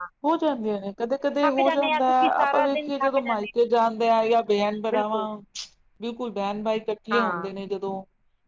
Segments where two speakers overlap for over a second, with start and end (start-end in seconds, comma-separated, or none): 1.4-3.5